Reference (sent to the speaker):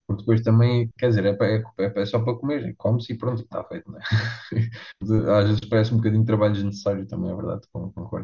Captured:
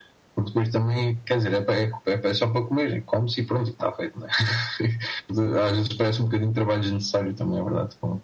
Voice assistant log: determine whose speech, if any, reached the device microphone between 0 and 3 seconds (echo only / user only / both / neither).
echo only